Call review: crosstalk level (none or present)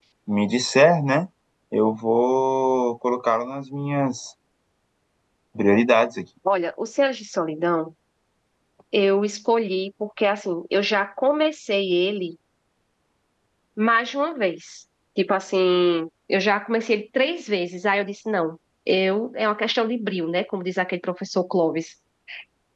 none